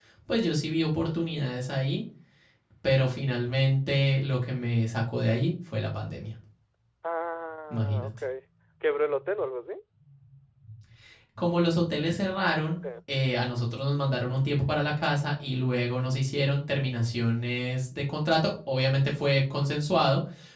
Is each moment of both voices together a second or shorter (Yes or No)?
Yes